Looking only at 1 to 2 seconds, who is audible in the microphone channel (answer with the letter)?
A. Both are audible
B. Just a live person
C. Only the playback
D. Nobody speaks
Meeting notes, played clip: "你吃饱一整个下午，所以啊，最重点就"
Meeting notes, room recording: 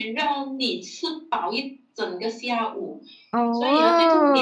C